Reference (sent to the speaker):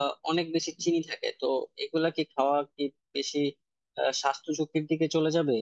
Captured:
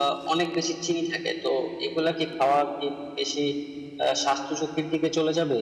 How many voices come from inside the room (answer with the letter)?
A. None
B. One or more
A